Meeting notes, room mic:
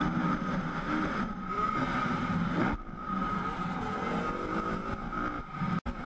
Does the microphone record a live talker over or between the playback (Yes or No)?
No